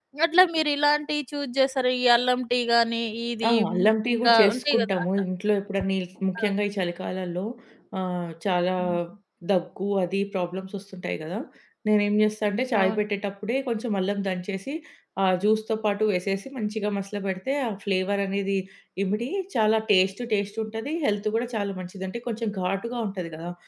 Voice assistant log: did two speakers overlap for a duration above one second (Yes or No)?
Yes